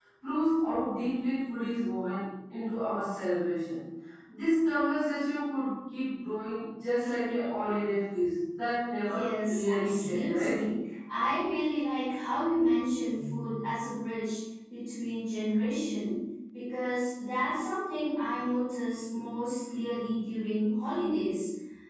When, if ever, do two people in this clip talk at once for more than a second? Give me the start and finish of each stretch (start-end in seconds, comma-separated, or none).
9.0-10.6